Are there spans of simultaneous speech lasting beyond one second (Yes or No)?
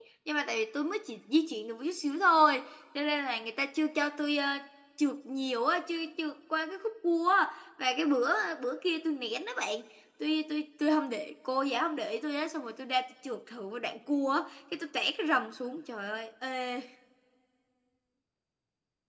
No